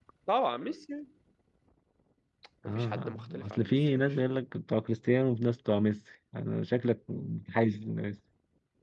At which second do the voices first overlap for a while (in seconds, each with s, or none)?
2.7 s